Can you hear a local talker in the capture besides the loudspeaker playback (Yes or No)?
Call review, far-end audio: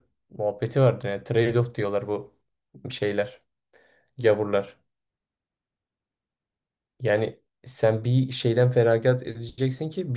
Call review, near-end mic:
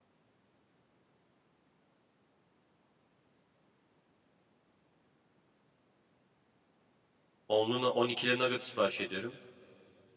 Yes